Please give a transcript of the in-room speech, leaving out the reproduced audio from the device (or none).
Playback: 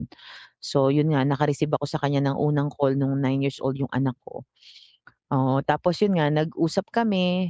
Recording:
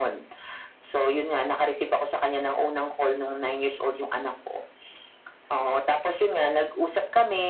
none